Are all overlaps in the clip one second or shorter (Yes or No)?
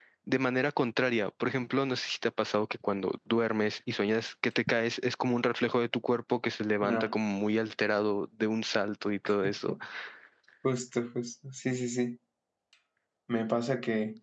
Yes